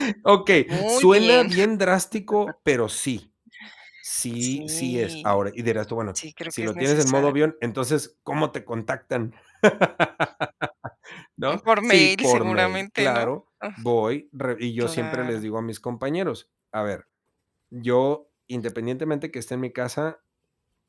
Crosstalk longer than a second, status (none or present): present